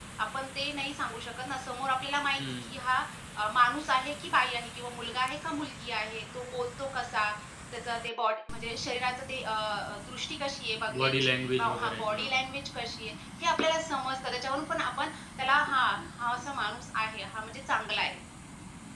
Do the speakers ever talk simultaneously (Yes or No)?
Yes